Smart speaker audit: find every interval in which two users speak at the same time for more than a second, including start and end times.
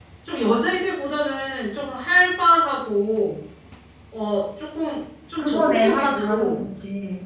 5.4-6.6

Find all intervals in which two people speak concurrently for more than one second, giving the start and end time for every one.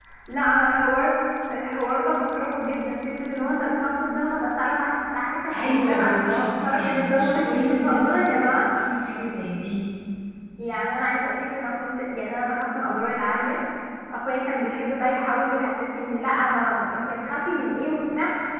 5.6-8.6

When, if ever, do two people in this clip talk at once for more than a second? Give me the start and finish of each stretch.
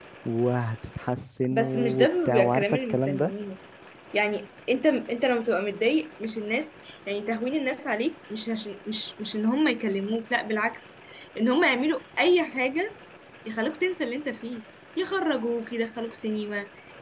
1.5-3.3

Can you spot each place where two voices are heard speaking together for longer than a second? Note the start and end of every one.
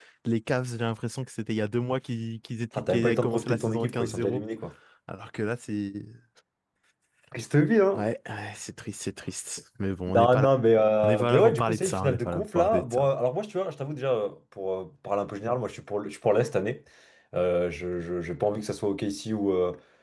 2.8-4.4, 11.0-13.1

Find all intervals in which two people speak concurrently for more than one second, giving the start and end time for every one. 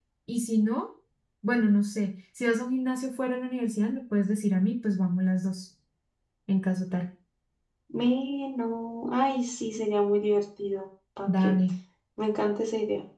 none

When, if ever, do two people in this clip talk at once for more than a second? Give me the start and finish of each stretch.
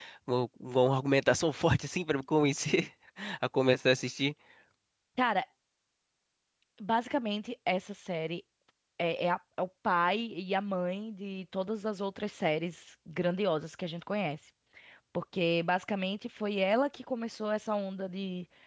none

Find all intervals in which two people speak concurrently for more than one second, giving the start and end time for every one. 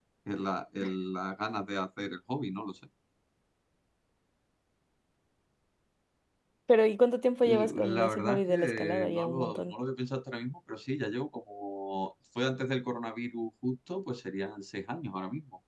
7.4-9.7

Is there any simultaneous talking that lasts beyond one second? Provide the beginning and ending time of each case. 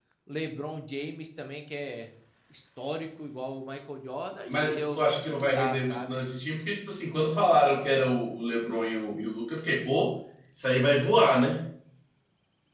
4.5-6.2

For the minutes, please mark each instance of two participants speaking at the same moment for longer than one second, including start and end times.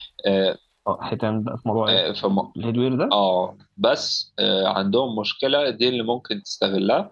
none

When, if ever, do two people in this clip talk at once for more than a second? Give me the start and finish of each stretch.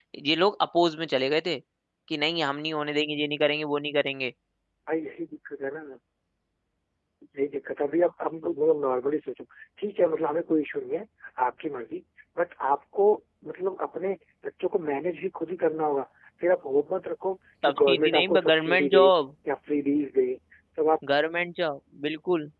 17.7-19.1

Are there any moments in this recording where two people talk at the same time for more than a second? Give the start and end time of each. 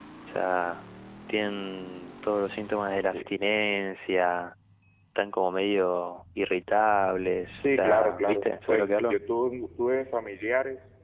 7.6-9.2

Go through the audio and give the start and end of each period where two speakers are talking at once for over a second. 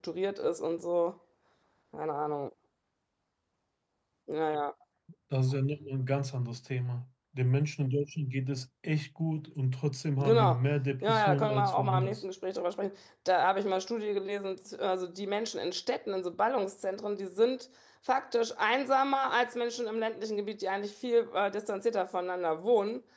11.0-12.2

